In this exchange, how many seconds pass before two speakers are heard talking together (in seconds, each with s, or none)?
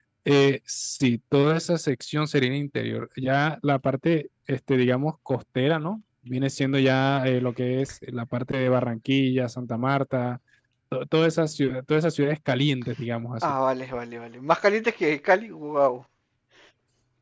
none